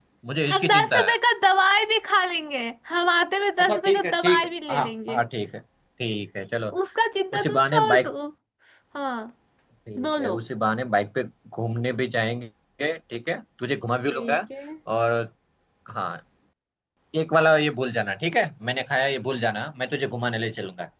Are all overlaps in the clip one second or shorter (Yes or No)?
No